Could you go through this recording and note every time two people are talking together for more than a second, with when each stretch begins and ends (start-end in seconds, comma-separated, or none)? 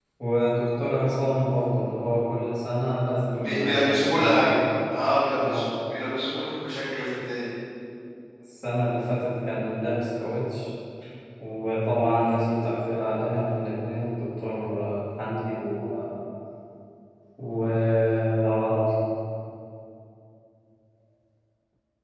3.3-4.6